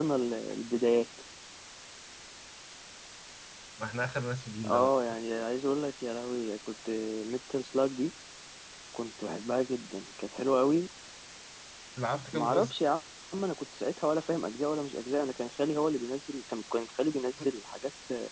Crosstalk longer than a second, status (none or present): none